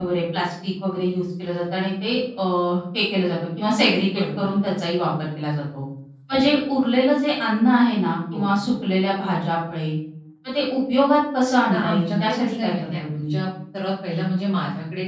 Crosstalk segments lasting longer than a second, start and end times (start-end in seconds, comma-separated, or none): 11.7-13.4